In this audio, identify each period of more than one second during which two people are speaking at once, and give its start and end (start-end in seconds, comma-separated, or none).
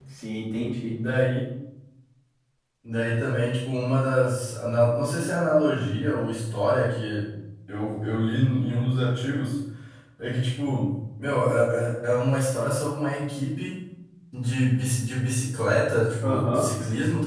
none